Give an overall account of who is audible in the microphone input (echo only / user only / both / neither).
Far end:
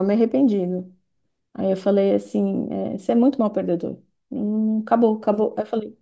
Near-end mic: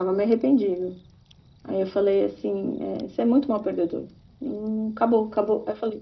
echo only